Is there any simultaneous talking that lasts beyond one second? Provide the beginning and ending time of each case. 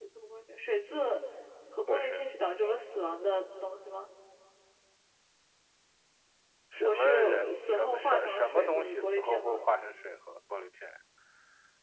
6.8-9.6

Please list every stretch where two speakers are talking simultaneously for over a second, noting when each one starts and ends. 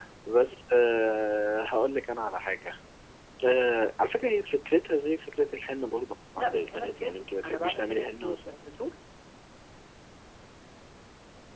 6.4-8.6

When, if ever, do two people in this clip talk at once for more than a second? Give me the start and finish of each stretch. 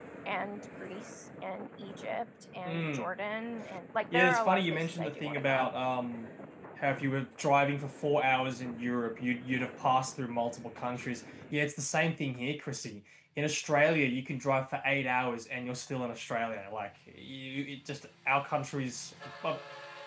4.1-5.7

